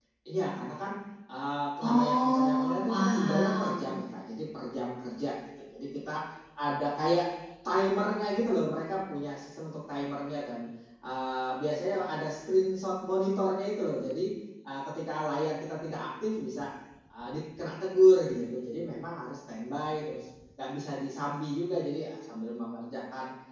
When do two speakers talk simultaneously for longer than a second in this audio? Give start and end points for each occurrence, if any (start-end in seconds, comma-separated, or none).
1.8-3.9